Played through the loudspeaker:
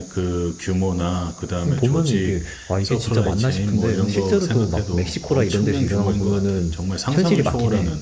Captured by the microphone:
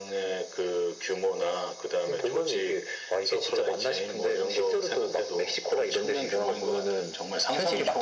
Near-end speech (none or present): none